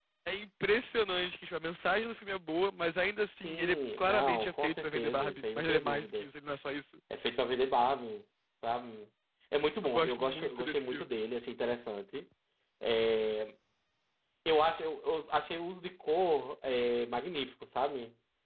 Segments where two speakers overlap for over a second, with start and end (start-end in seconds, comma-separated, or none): 3.4-6.3, 9.8-11.1